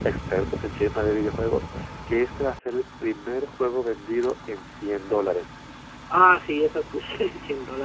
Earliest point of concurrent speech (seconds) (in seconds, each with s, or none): none